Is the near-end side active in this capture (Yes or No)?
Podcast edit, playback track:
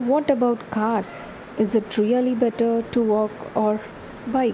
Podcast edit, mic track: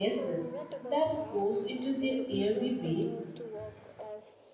Yes